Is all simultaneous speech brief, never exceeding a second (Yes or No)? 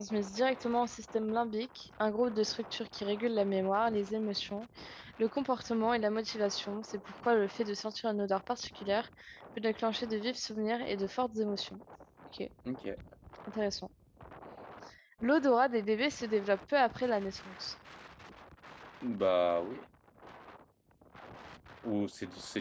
Yes